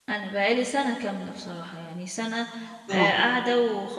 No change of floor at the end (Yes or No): Yes